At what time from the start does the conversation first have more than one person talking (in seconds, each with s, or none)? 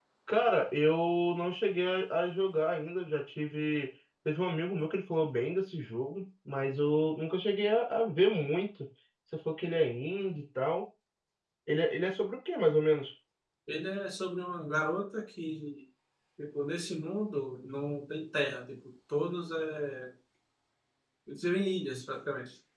none